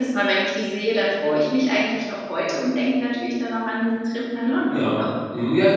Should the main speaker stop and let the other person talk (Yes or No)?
Yes